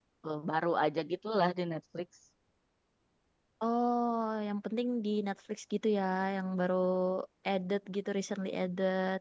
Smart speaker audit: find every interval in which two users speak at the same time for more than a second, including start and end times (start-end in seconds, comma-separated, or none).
none